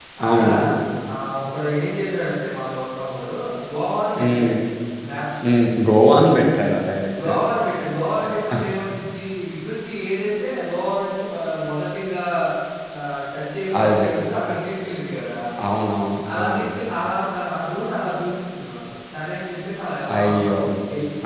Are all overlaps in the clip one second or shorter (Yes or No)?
Yes